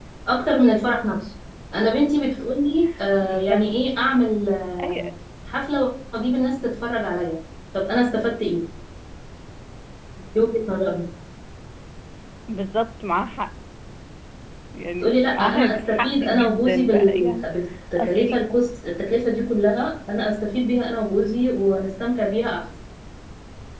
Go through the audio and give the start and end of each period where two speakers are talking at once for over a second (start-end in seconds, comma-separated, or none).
15.0-17.5